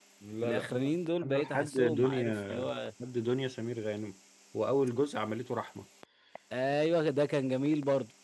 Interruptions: present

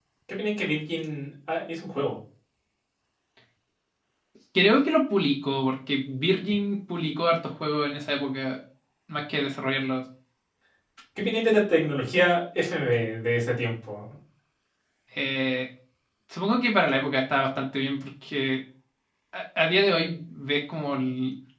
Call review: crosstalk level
none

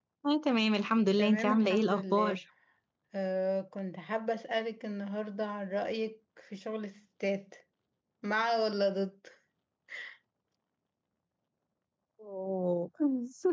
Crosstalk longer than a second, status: present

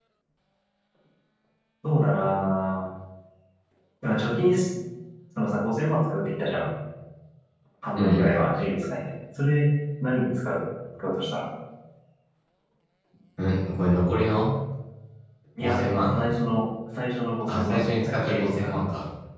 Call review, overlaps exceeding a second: present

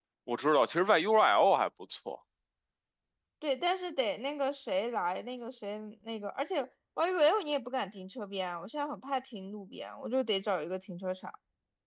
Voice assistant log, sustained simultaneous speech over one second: none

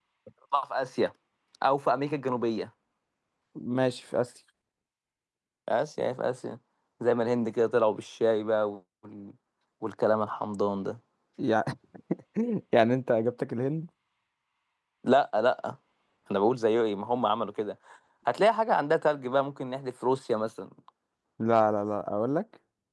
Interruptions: none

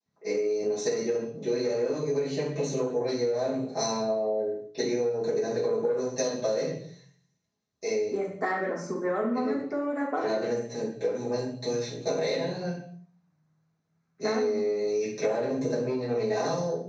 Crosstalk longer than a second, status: none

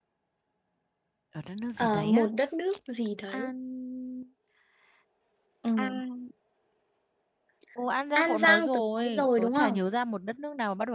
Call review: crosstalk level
present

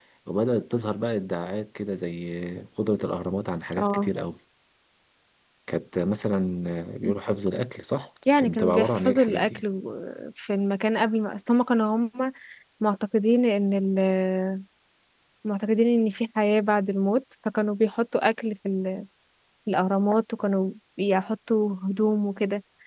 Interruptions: present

